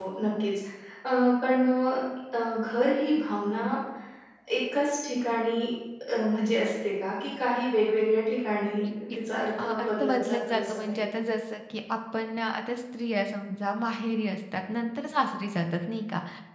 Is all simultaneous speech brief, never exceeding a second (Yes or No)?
No